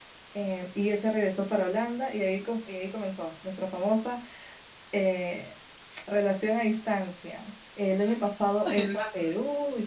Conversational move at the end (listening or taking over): listening